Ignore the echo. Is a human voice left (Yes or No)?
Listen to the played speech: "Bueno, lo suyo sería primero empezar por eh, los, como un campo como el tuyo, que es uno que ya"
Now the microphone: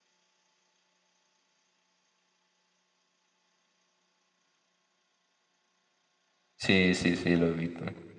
Yes